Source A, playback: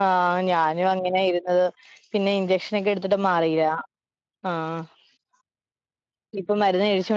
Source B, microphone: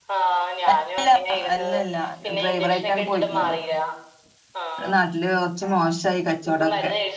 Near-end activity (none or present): present